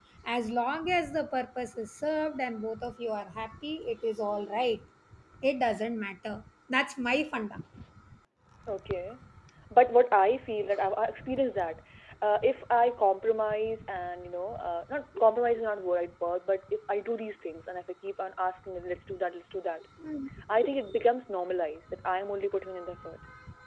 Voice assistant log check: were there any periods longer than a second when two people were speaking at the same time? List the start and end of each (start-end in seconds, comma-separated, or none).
none